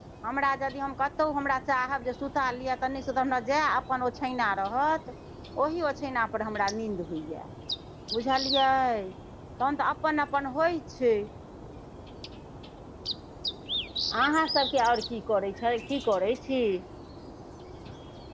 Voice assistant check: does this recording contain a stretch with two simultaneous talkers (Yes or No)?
No